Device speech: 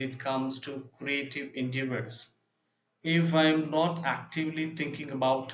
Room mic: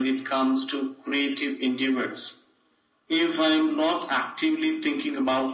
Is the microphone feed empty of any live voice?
Yes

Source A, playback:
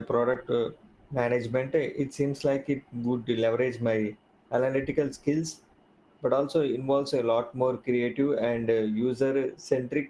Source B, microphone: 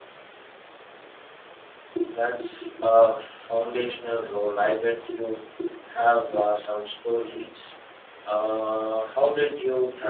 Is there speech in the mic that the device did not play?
Yes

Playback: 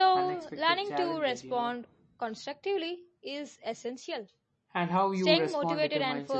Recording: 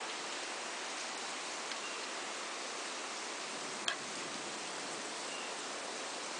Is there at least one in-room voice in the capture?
No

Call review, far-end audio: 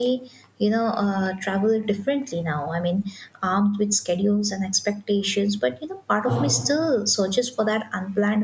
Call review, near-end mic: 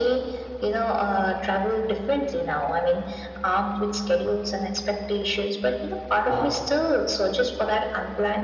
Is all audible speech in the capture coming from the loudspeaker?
Yes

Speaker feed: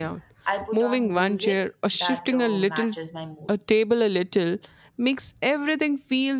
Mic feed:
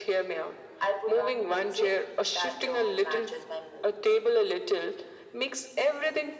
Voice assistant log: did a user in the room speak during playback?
No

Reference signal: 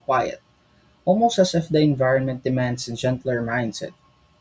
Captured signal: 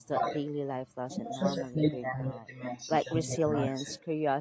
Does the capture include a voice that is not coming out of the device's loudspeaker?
Yes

